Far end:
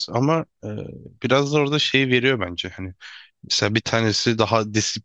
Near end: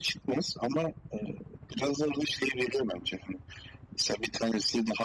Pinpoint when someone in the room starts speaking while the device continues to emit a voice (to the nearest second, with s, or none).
none